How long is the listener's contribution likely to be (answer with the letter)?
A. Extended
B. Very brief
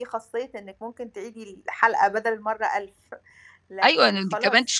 A